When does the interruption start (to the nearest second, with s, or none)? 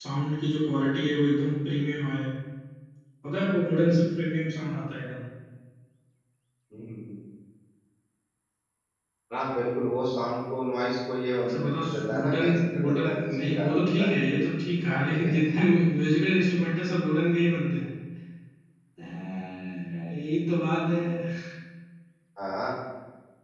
11 s